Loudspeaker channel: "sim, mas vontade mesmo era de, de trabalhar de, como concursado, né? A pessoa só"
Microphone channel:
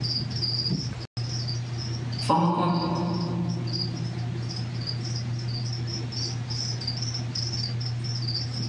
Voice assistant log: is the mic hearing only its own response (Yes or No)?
No